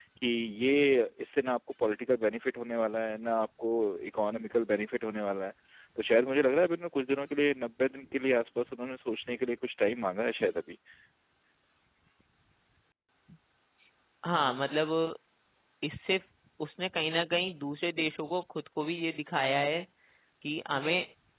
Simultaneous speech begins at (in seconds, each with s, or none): none